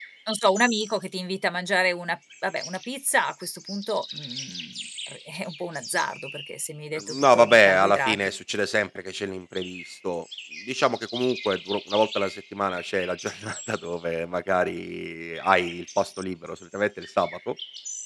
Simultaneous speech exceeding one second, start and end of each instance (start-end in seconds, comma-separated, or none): 7.0-8.2